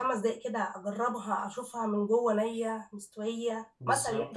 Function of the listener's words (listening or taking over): taking over